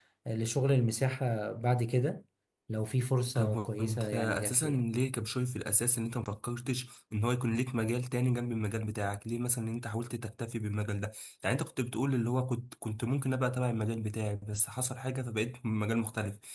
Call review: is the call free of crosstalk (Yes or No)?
No